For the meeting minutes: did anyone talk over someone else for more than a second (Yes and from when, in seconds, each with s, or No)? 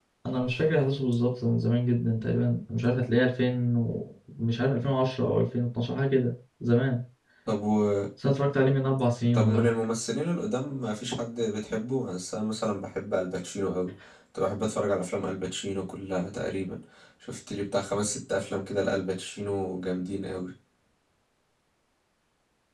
No